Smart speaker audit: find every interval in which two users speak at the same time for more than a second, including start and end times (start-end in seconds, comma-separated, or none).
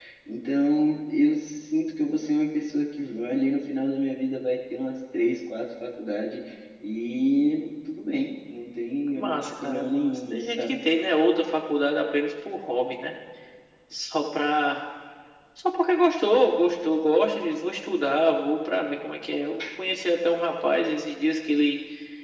9.1-10.8